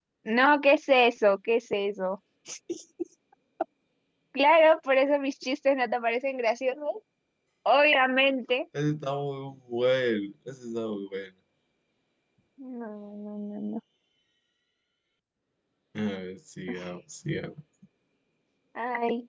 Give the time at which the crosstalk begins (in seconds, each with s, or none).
none